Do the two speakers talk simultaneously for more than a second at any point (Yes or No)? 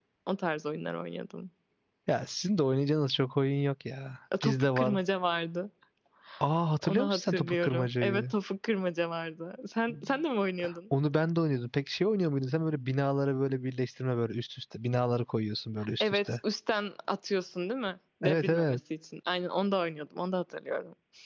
Yes